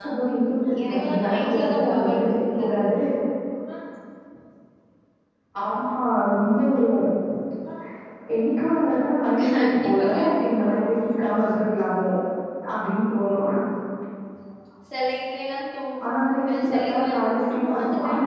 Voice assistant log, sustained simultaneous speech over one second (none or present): present